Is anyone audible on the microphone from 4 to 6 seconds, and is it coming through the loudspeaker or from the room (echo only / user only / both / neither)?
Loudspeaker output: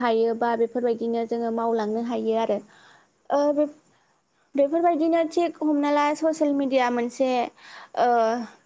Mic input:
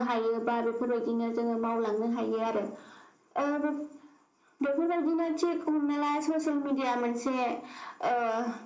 echo only